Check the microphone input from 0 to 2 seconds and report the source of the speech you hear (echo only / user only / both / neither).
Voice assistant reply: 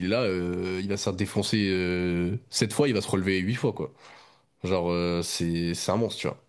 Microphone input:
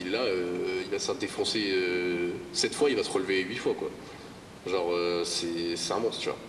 echo only